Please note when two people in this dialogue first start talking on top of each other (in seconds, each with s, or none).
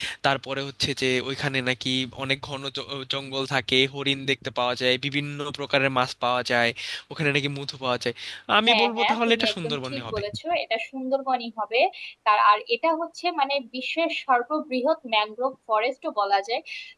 8.7 s